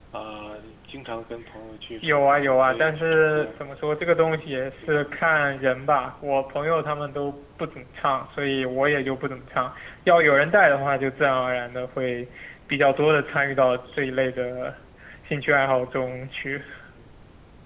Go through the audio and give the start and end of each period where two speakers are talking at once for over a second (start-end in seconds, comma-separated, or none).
2.0-3.5